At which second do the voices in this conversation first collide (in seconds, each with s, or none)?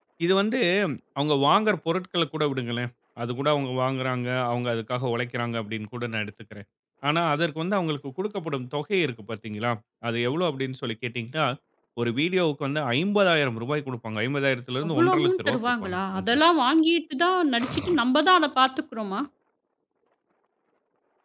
14.8 s